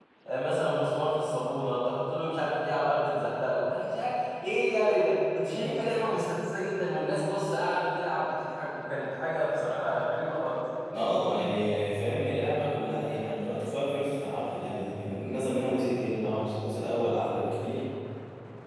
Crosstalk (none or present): none